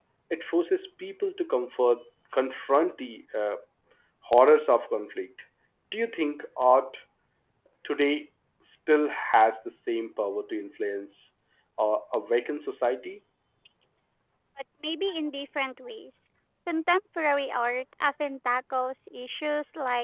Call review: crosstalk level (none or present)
none